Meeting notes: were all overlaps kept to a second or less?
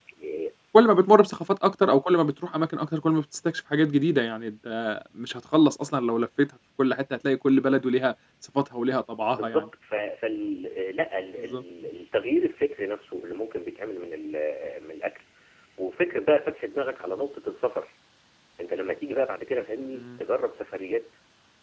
Yes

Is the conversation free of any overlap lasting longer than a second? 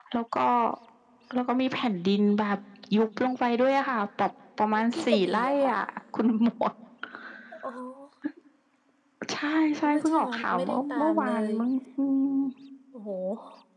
No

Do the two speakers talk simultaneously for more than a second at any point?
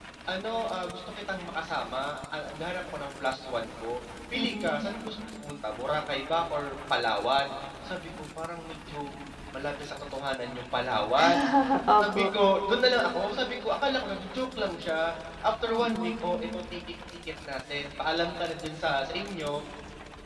No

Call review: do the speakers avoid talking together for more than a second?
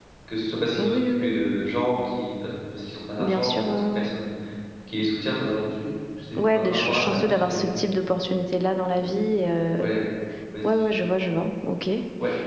No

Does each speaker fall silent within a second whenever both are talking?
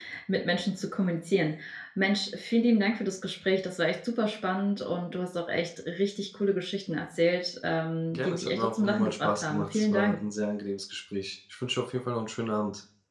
No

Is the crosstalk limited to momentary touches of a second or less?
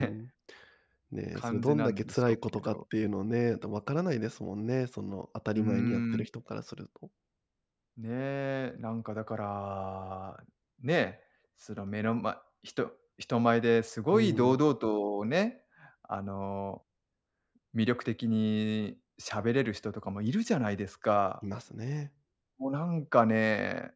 No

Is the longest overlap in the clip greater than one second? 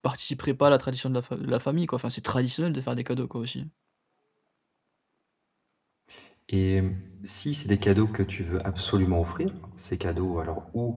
No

